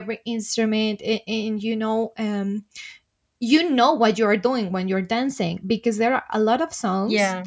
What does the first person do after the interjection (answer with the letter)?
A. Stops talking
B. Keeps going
B